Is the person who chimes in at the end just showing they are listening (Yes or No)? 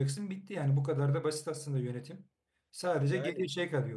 Yes